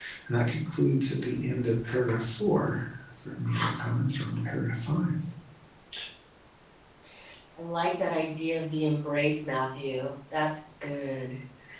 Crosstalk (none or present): none